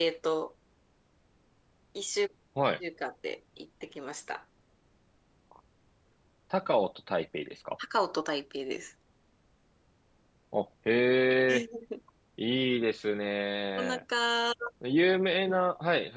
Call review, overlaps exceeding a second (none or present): none